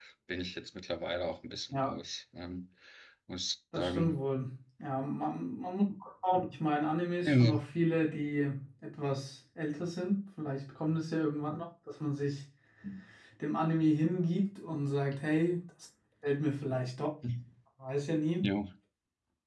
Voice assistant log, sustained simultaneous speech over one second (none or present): none